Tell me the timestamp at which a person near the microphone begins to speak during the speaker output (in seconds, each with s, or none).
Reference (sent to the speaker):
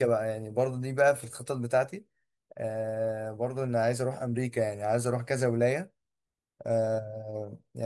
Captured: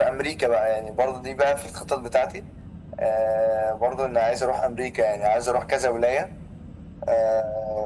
none